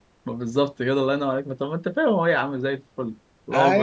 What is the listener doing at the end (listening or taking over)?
taking over